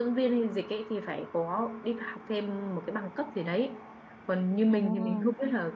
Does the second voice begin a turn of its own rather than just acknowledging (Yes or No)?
No